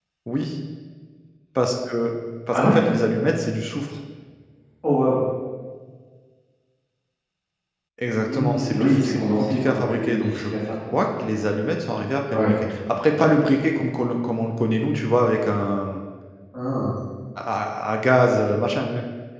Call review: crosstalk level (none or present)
present